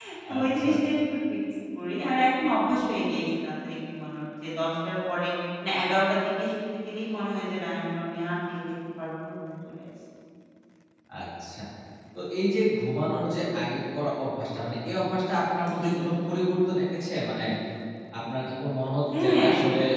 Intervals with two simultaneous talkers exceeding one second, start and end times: none

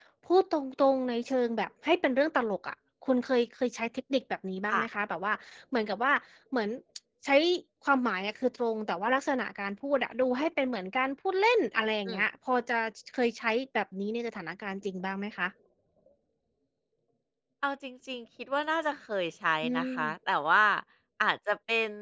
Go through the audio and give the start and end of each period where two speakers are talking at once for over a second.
none

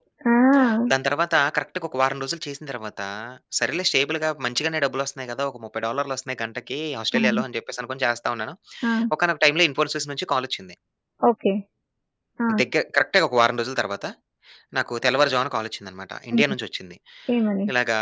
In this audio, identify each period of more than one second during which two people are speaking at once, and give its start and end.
none

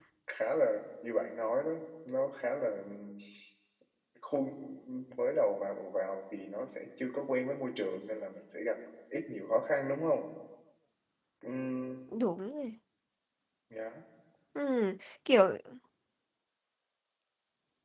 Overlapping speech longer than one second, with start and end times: none

